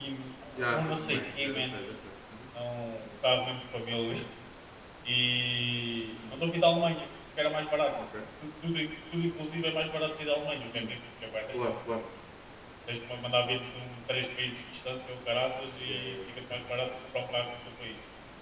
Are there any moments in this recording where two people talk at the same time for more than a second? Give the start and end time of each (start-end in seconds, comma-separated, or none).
0.6-1.8